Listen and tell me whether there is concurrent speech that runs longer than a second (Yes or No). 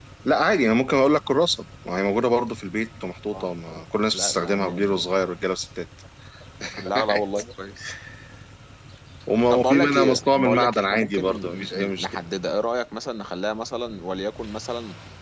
Yes